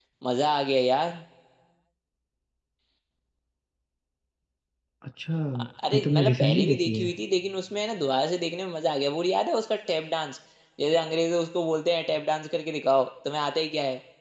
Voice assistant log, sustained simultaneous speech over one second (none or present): present